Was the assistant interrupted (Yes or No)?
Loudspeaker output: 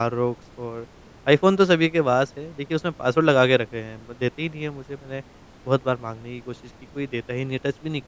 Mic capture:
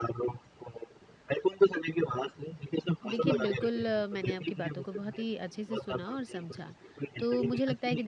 Yes